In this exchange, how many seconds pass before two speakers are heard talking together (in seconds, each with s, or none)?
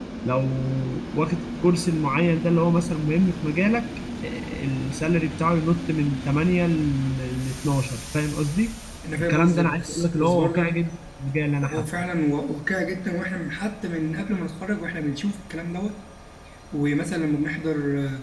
9.2 s